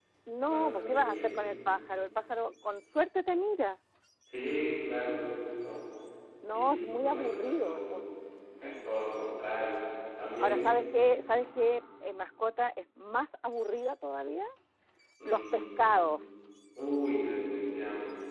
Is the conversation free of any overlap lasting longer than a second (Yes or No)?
No